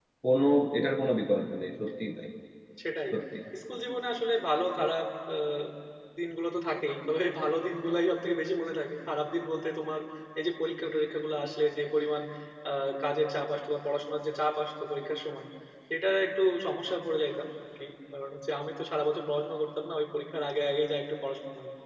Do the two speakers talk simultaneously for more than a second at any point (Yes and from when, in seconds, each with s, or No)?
No